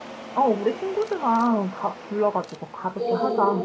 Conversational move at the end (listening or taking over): taking over